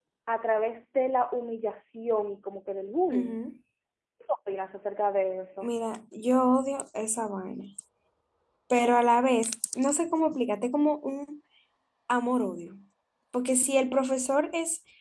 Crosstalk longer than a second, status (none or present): none